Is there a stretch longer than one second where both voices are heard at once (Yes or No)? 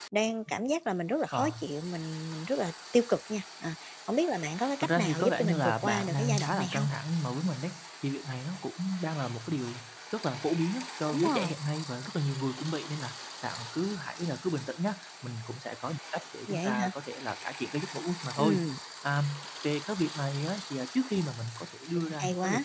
Yes